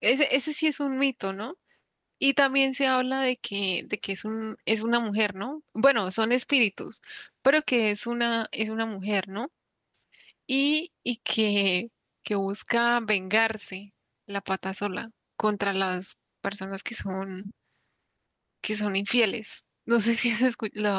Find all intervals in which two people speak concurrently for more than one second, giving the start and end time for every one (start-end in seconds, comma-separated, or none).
none